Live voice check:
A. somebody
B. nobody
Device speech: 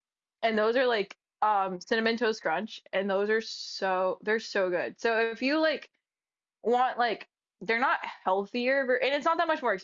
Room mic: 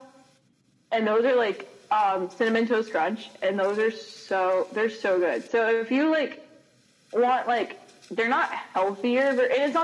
B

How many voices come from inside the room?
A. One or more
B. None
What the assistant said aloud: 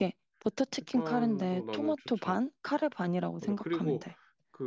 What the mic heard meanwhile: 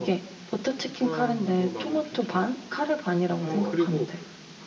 A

